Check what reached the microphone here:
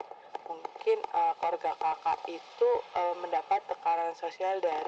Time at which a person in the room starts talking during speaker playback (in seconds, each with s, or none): none